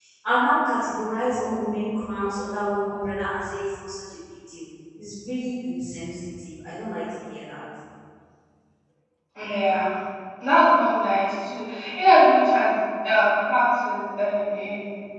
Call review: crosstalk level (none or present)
none